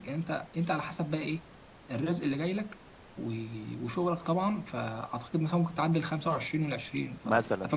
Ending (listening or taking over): taking over